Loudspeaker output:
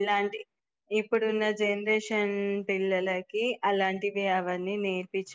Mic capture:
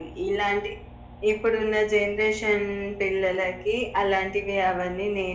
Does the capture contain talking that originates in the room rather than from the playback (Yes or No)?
No